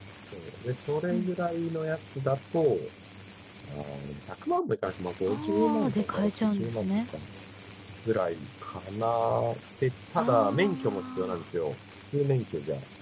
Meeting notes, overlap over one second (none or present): present